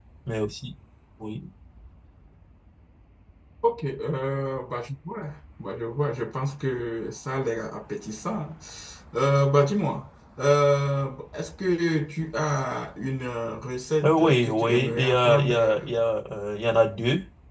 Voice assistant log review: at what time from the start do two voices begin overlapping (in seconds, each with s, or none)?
14.0 s